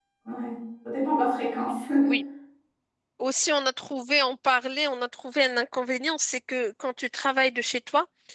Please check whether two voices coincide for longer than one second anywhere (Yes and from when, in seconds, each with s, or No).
No